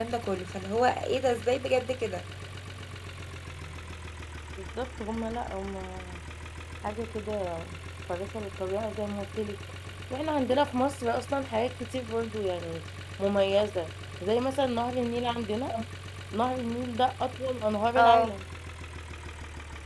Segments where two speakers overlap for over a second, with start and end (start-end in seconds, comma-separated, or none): none